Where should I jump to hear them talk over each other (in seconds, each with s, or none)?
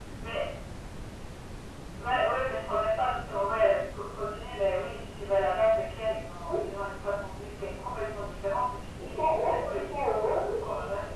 9.0 s